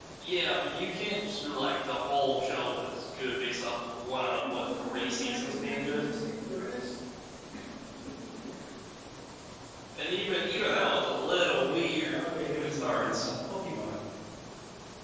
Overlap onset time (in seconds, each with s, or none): 4.4 s